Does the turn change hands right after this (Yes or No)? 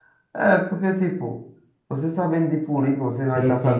Yes